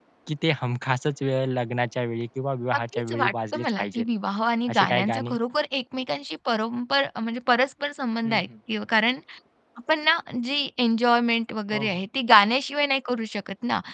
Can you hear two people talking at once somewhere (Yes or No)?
Yes